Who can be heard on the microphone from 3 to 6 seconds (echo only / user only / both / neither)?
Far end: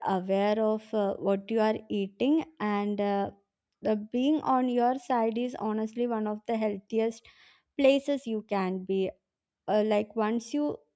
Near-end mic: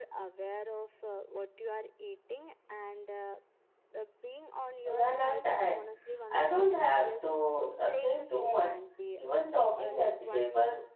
both